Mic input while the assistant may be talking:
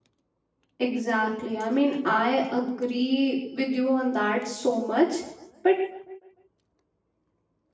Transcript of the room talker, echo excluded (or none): Exactly. I mean, I agree with you on that so much, but